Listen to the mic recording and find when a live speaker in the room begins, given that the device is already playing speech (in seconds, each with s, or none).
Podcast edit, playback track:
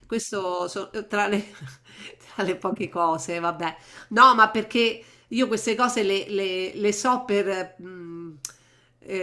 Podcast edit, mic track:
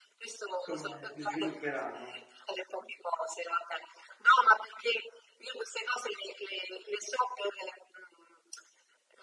0.6 s